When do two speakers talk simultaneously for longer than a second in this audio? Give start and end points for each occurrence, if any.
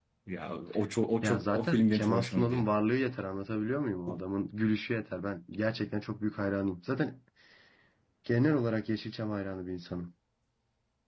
1.2-2.6

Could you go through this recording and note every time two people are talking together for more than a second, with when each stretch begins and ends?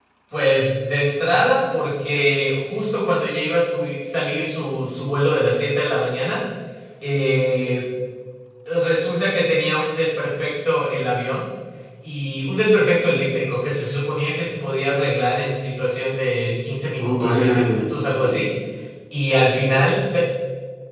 17.0-18.5

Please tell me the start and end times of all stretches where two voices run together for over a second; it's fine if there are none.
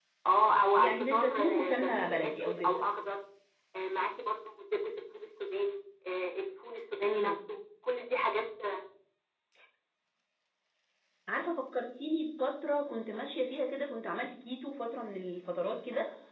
0.8-2.8

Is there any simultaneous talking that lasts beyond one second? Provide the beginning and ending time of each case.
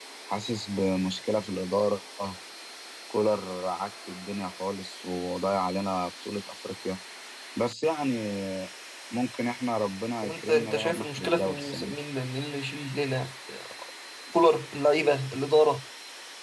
10.2-11.9

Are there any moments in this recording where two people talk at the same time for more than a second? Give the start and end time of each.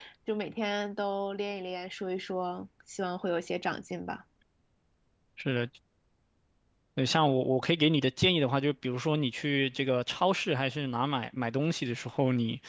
none

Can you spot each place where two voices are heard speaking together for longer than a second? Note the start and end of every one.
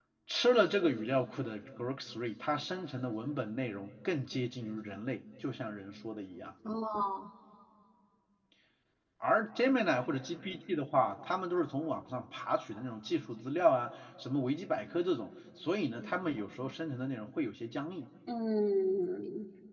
none

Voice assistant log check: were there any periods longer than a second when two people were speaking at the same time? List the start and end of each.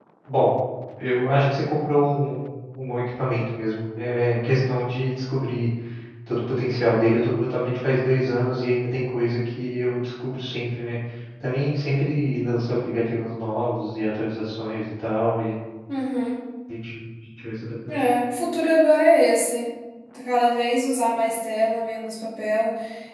none

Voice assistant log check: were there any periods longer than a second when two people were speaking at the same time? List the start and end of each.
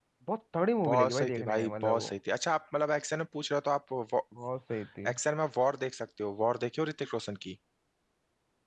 0.9-2.1

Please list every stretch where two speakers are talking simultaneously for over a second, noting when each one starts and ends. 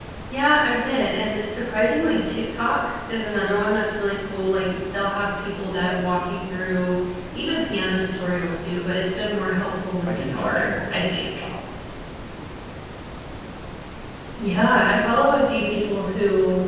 10.1-11.3

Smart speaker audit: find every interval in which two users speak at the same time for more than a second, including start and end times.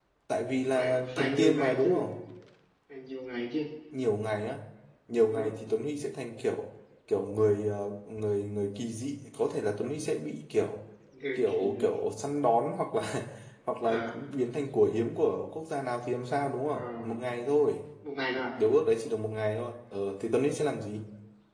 0.8-2.1

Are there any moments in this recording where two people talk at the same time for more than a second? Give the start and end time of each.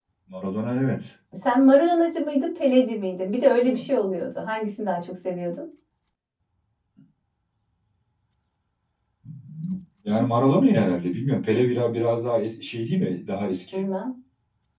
none

